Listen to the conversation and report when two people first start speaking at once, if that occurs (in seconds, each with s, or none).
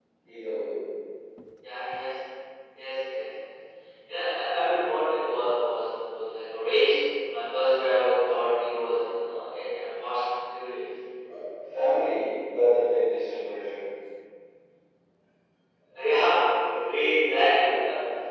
none